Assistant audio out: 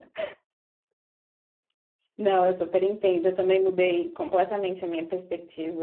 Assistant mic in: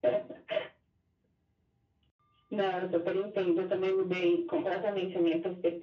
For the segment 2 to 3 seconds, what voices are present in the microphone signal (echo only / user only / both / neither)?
echo only